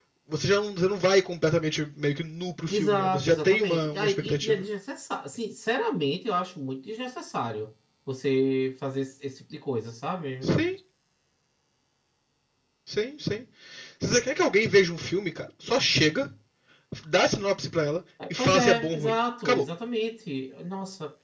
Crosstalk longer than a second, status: present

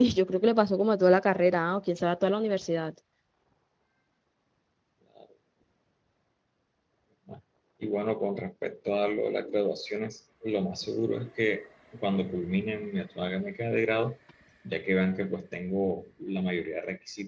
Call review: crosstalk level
none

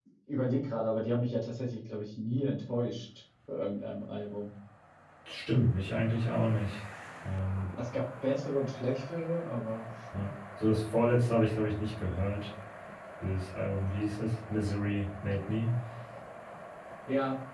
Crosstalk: none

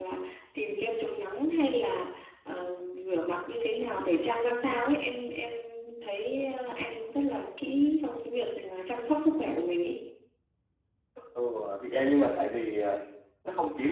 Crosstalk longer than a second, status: none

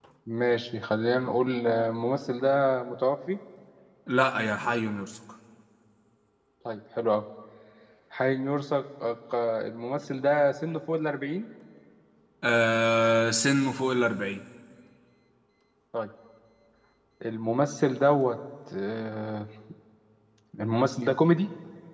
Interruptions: none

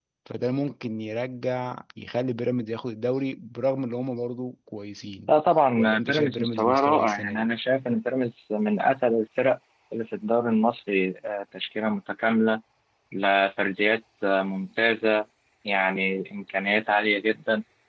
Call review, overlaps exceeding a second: present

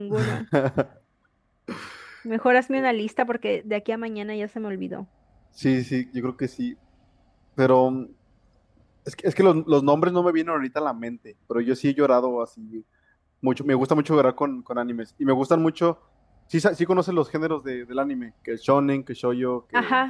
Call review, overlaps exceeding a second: none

